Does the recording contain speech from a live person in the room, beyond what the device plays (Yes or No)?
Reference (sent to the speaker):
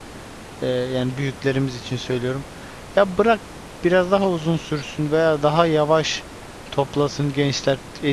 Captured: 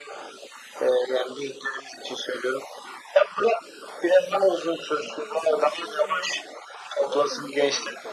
Yes